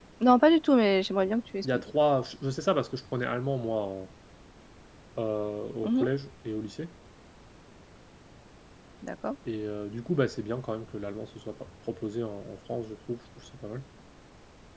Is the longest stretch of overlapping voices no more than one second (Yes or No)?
Yes